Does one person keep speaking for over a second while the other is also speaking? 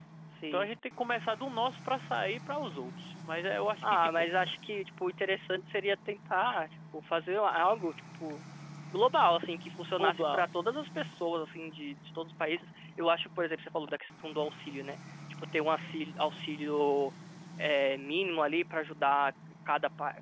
No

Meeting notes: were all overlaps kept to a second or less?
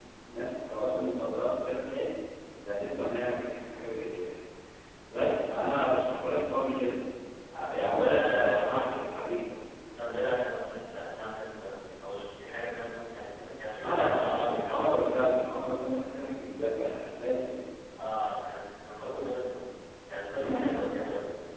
No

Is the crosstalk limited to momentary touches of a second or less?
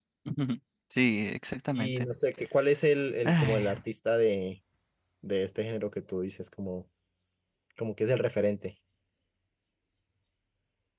Yes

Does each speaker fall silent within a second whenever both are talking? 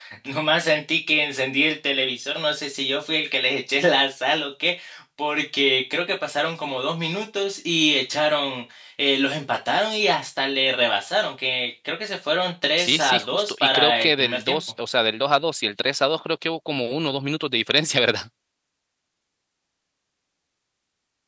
No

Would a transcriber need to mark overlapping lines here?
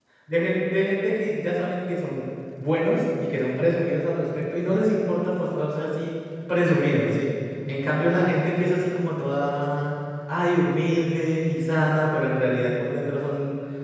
No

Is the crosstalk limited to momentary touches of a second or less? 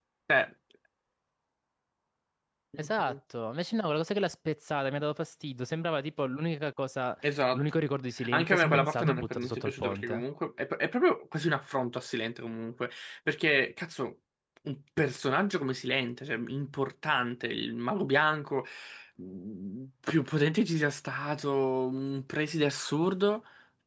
No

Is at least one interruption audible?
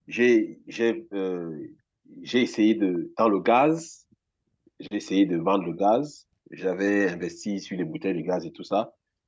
No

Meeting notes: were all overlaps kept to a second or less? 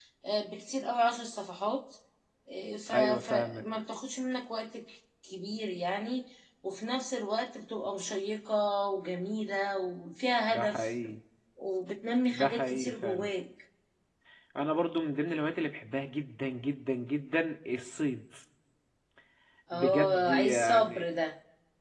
No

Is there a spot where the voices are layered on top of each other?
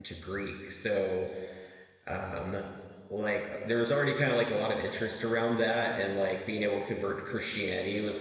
No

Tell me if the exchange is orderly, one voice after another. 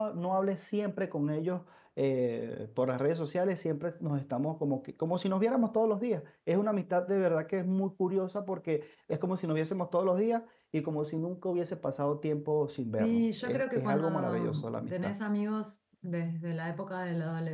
No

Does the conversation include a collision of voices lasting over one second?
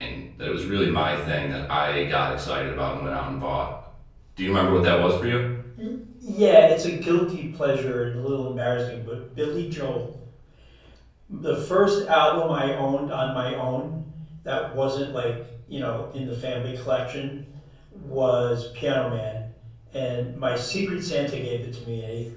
No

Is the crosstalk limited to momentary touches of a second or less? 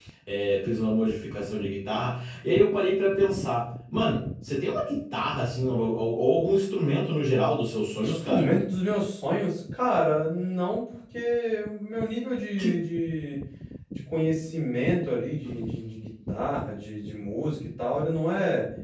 Yes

